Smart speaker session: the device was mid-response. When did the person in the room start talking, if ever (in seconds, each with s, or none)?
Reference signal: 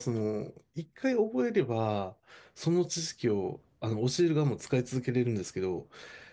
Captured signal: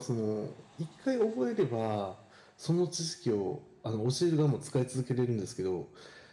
none